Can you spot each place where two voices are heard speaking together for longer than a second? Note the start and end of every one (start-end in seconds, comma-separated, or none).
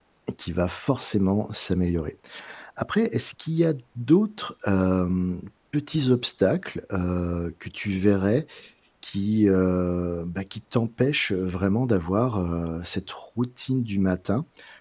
none